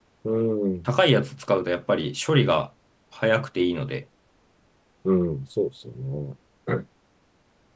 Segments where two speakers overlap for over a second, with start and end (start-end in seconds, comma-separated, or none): none